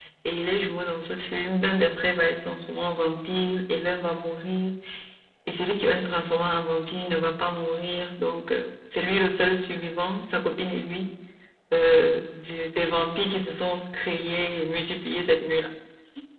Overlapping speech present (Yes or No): No